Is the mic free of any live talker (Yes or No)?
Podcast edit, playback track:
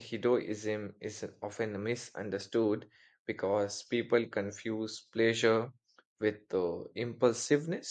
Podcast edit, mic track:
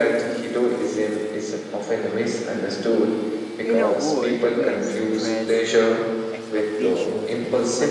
No